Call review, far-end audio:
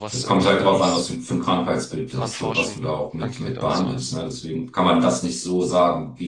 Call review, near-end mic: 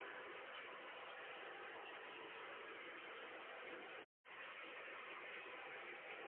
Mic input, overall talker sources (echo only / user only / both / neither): neither